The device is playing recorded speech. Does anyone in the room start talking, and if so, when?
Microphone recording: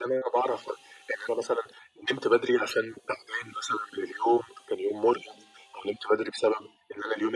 none

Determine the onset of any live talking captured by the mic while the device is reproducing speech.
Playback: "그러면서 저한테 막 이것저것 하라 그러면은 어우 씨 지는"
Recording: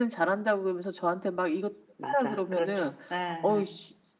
2 s

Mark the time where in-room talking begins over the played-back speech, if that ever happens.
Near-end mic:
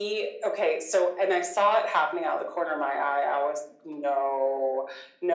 none

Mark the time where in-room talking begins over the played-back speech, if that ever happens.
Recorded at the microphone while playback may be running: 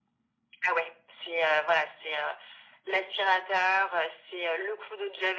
none

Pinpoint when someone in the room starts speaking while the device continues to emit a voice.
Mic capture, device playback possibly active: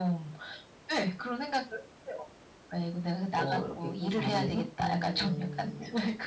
3 s

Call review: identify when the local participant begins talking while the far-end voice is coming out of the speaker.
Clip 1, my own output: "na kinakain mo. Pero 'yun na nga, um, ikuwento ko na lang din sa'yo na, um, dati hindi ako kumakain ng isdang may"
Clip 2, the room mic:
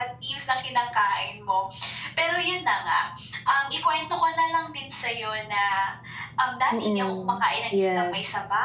7 s

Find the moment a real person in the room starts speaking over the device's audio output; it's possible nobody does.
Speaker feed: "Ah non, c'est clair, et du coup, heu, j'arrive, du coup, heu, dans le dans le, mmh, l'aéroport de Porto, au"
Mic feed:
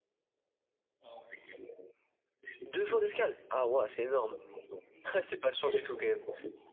3 s

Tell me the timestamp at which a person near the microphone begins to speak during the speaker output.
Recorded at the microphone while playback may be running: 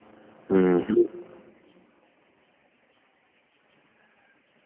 1 s

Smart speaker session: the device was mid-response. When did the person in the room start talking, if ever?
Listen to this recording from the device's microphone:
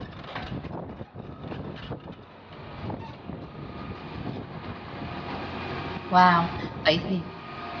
6 s

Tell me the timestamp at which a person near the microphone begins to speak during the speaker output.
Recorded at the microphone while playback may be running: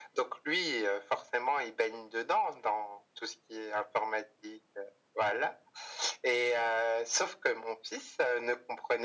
none

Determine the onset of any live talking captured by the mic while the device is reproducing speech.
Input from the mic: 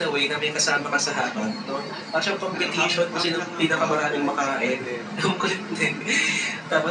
3 s

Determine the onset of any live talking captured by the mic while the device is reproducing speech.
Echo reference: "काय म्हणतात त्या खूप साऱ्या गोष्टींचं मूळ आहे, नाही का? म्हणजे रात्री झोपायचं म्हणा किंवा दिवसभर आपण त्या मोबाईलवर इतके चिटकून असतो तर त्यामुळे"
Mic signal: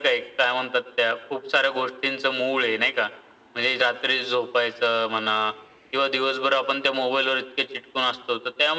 none

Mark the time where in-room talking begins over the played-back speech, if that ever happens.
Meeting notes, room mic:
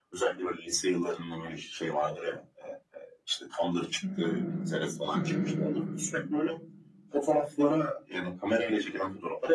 4 s

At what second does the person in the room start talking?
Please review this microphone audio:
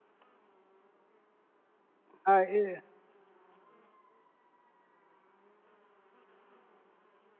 2 s

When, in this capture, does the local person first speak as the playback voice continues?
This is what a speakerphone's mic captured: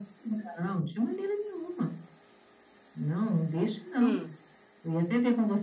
4 s

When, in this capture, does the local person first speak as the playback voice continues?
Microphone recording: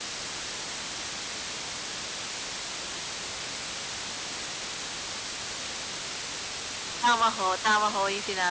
7 s

